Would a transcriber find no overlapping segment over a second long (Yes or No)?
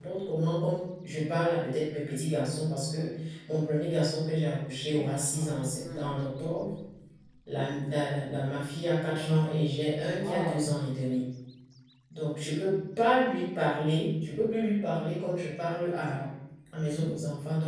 No